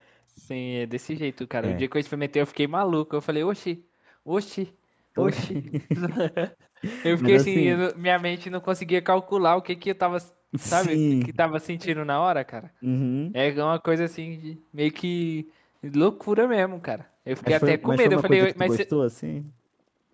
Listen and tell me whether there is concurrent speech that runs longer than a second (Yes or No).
Yes